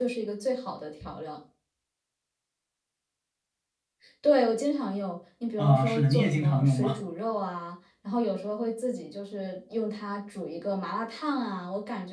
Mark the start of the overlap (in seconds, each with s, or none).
5.6 s